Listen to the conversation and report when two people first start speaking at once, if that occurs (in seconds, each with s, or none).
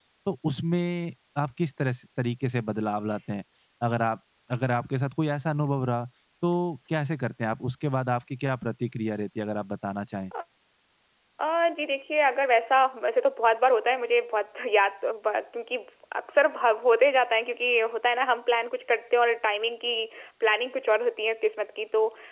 none